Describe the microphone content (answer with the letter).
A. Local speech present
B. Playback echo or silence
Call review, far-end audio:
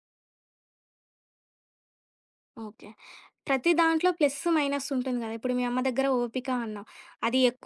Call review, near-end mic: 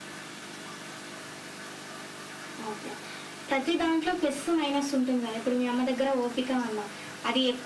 B